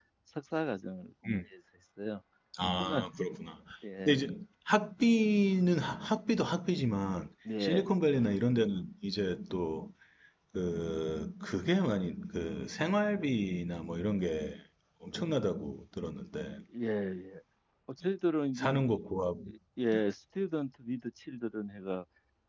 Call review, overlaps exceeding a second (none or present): none